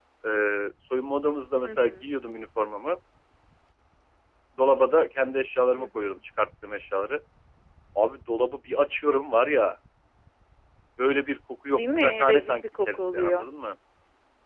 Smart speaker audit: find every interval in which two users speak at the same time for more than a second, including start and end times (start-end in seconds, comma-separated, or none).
11.8-13.5